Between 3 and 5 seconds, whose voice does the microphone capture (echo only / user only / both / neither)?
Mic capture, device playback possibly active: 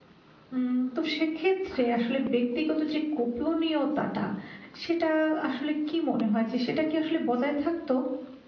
user only